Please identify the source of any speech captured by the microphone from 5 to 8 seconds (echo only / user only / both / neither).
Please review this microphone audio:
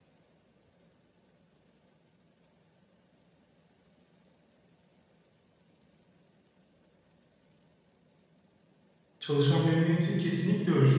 neither